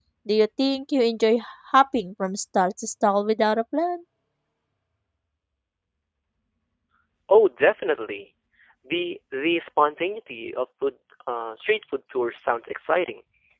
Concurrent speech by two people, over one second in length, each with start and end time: none

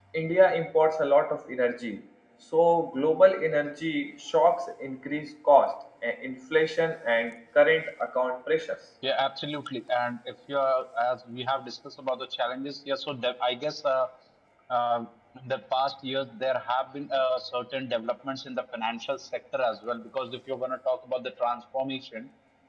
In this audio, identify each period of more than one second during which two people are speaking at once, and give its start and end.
none

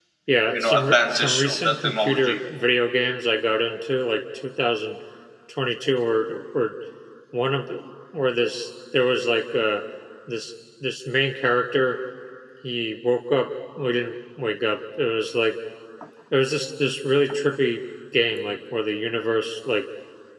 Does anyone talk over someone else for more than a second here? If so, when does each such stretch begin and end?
0.5-2.4

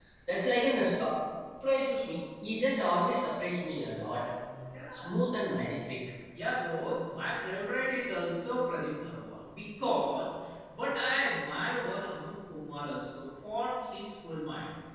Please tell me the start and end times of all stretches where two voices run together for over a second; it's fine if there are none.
none

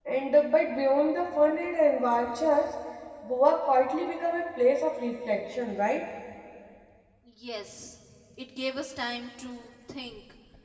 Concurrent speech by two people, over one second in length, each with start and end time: none

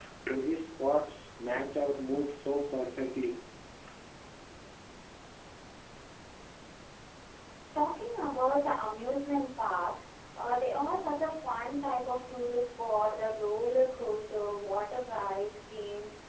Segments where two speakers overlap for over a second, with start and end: none

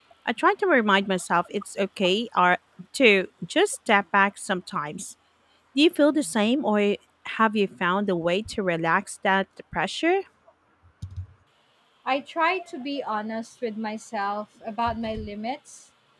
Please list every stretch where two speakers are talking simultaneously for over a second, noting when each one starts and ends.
none

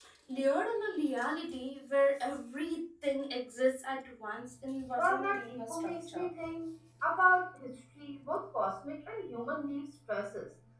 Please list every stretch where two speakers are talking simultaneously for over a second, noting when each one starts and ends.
5.0-6.3

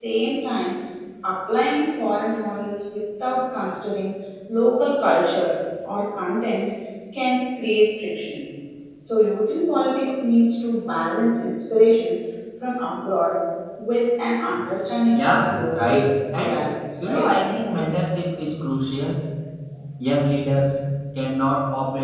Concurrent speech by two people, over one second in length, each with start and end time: 15.2-16.6

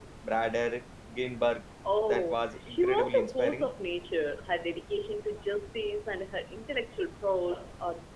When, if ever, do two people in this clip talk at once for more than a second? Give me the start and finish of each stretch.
2.1-3.7

